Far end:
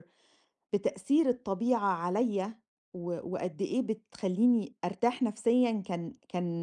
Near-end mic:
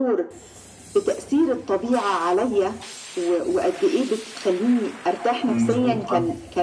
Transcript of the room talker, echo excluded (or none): إمم، مضبوط، آه.